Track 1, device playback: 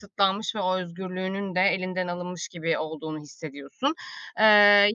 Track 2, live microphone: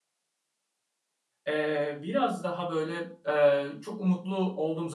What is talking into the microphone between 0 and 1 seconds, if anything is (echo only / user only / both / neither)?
neither